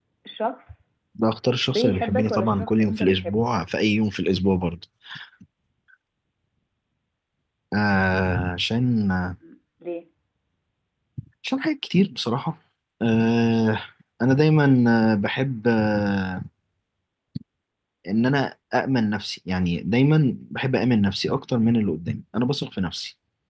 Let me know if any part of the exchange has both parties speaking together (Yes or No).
Yes